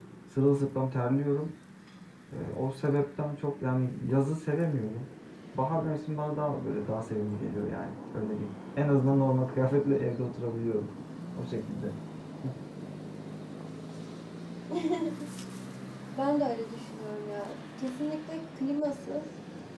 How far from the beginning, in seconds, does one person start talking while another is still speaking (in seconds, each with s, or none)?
none